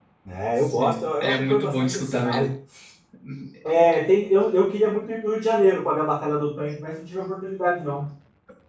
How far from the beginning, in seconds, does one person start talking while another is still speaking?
0.6 s

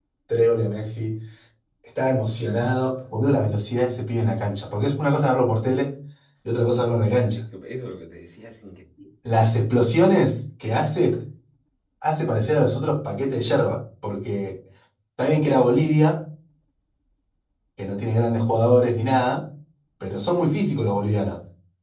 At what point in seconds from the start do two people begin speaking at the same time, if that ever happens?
none

